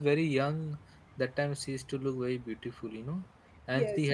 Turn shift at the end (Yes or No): Yes